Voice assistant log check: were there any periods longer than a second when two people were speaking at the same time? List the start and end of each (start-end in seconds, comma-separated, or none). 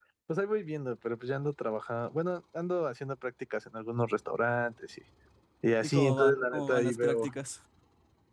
5.8-7.3